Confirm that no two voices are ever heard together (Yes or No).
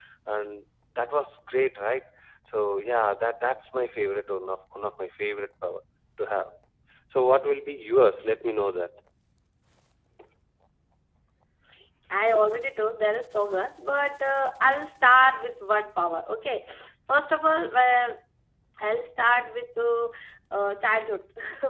Yes